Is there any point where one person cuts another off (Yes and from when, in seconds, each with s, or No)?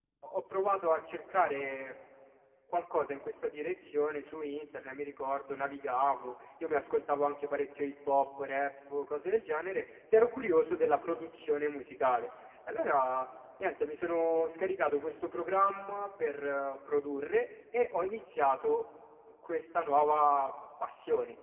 No